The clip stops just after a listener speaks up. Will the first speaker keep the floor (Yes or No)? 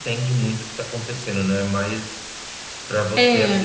Yes